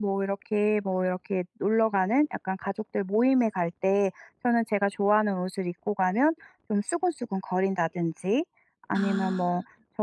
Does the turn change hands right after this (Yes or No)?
No